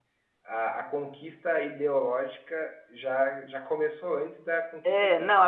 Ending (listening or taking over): taking over